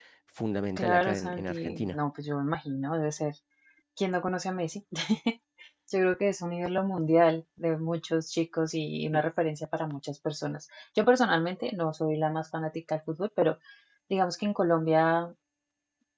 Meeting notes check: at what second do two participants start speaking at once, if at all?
0.8 s

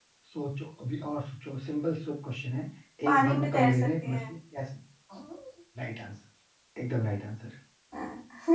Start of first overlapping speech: 3.1 s

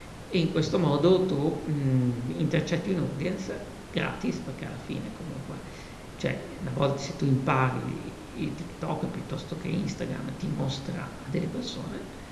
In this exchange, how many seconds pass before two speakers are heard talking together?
none

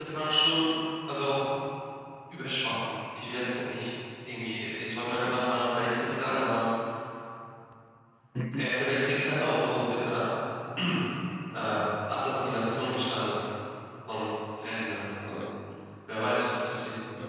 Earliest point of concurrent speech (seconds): 5.2 s

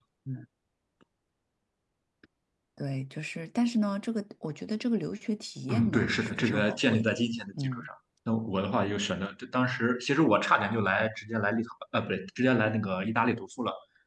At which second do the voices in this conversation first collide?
5.7 s

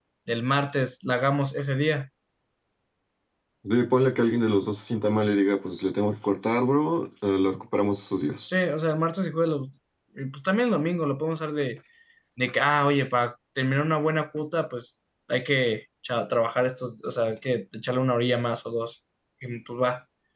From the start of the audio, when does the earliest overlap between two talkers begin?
none

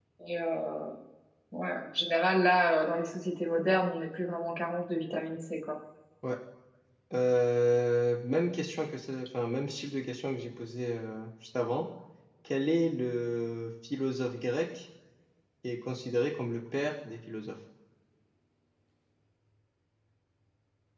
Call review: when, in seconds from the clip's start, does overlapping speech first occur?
none

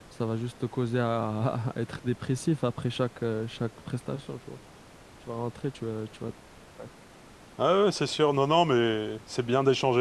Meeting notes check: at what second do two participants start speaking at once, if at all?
none

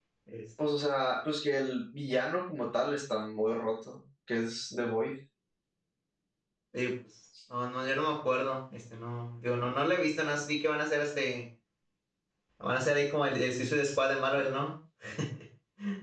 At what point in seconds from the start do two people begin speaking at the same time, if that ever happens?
none

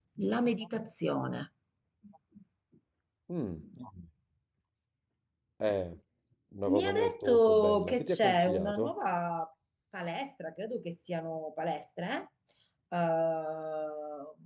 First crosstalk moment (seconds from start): 6.7 s

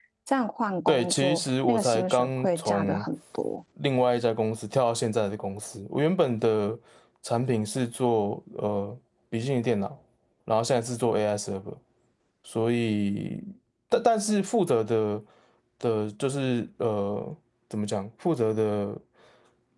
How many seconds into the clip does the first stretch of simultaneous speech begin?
0.9 s

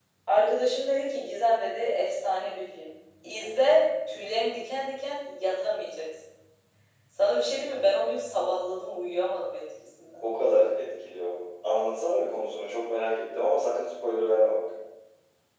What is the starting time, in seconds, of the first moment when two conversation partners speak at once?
none

